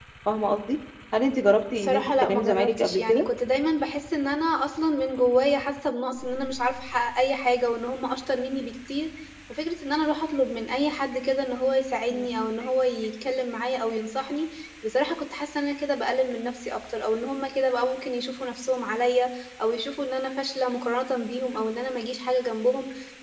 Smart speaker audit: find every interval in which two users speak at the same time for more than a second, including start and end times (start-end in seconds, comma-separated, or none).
1.7-3.3